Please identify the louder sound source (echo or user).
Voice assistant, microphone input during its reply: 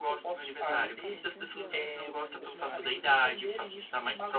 echo